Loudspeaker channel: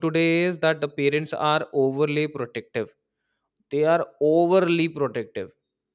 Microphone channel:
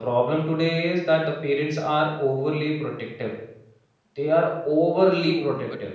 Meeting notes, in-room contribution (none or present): present